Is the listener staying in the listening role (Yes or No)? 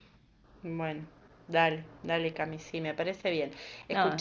Yes